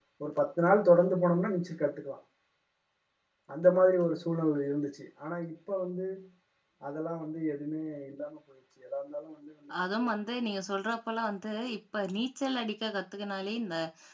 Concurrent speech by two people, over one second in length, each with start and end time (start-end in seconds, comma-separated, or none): none